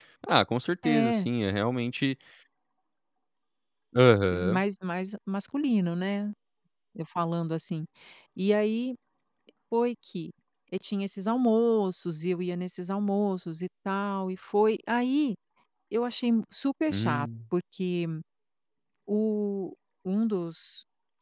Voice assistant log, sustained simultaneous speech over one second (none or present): none